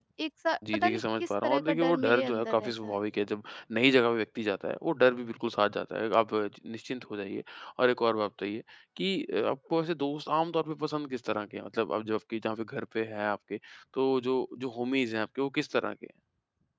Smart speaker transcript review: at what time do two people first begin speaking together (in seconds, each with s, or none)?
0.7 s